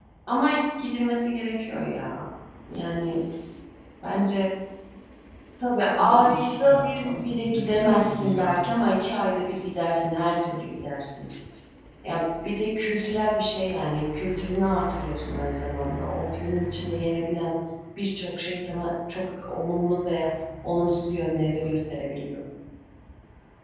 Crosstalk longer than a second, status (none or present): present